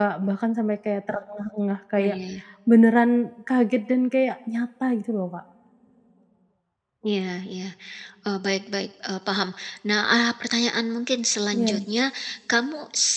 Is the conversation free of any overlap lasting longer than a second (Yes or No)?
Yes